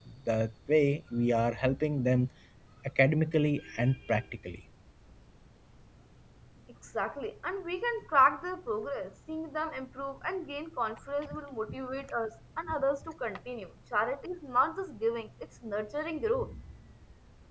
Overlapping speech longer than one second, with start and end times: none

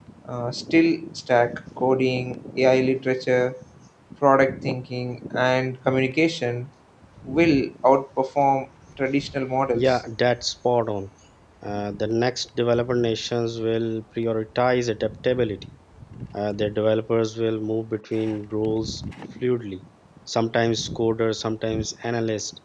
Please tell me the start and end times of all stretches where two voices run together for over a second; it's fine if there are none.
none

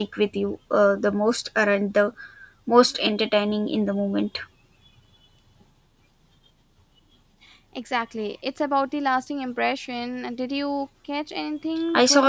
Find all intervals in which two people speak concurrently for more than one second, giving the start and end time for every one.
none

